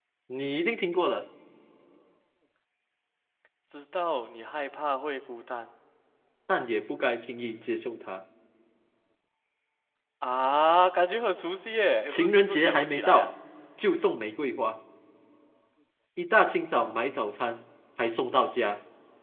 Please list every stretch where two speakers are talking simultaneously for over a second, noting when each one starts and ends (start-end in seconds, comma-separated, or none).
12.1-13.3